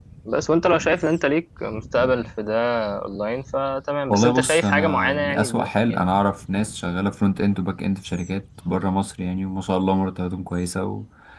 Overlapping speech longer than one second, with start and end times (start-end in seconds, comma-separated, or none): 4.1-6.0